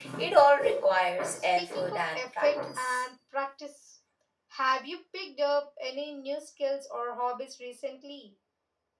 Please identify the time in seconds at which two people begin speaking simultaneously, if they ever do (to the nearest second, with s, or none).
1 s